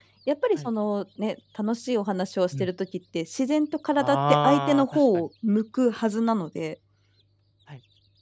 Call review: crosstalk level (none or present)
present